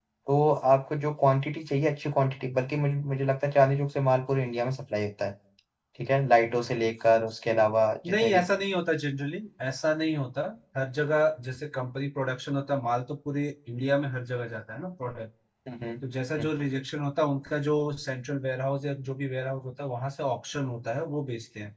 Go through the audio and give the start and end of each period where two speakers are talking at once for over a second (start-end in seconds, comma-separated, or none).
none